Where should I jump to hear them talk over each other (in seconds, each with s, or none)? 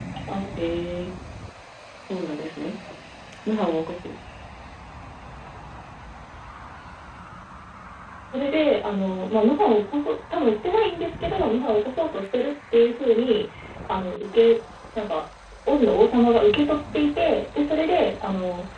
none